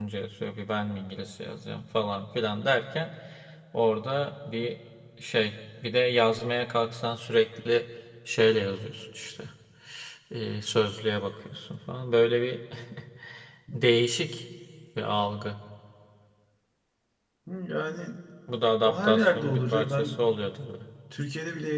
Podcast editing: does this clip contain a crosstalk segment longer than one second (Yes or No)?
Yes